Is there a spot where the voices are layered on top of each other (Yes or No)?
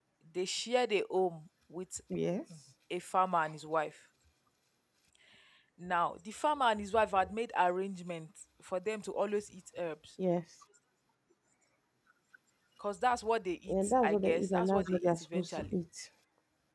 Yes